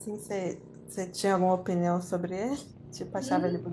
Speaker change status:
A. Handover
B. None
A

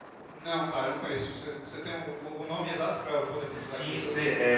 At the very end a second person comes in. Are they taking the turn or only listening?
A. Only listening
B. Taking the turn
B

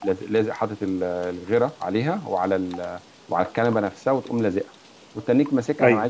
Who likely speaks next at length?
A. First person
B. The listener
A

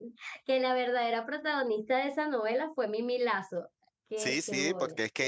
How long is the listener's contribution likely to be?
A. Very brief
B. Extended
B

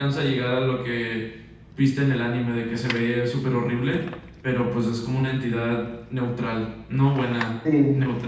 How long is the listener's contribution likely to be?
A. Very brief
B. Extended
B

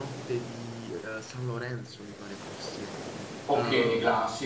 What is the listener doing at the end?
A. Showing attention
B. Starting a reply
A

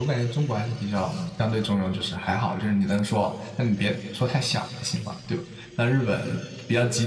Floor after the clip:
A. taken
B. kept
B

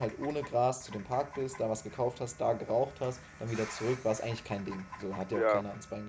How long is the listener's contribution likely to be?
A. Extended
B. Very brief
B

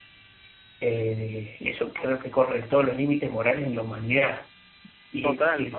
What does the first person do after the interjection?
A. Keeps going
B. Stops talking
A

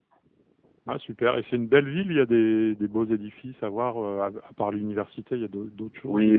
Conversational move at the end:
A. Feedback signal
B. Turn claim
B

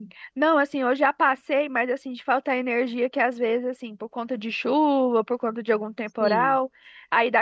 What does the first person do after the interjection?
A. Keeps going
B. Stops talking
A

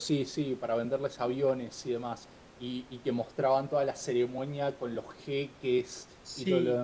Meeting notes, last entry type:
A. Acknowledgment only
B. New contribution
B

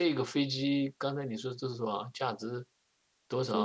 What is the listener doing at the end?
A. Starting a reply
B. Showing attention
A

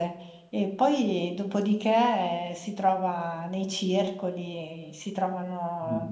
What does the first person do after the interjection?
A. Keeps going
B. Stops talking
A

